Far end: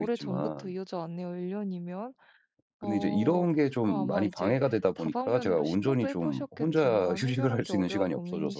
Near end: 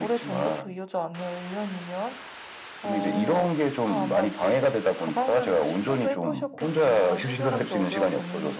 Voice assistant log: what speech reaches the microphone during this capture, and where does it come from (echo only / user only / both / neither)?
echo only